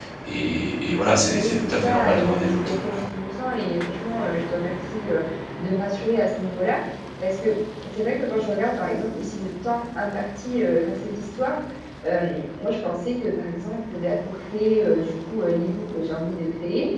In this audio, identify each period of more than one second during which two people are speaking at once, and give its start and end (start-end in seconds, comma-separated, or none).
1.2-3.0